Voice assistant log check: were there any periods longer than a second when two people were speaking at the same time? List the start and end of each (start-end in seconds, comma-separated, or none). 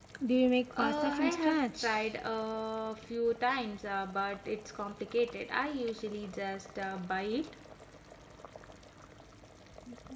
0.8-2.0